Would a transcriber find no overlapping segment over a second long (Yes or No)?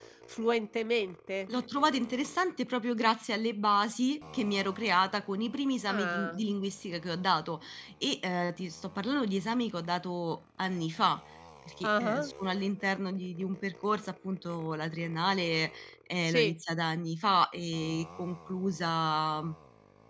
Yes